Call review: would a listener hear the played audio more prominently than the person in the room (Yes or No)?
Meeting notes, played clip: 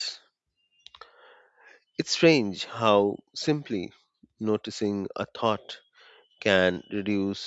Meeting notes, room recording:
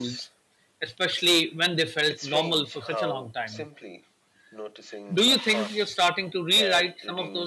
No